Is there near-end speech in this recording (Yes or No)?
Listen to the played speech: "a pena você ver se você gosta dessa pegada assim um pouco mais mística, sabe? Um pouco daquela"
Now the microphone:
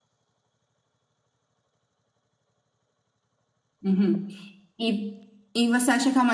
Yes